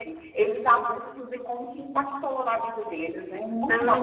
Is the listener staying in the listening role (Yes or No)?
No